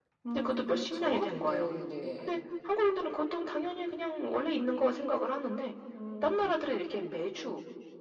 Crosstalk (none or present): present